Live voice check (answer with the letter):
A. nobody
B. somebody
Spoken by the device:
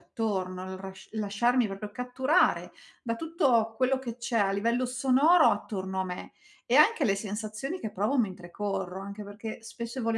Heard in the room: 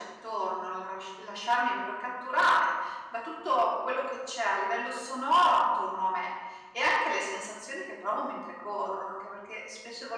A